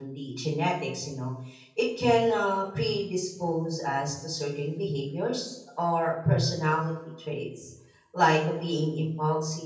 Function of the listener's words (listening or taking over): listening